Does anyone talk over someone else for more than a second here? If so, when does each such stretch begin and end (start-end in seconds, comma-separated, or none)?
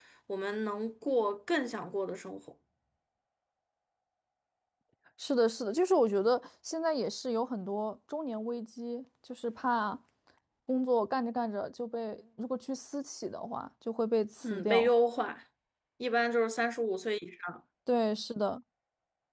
none